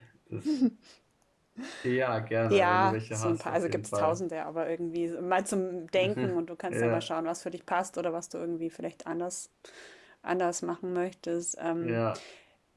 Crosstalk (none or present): present